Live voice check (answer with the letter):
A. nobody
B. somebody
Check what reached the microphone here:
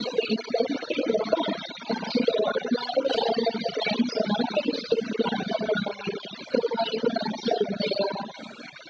A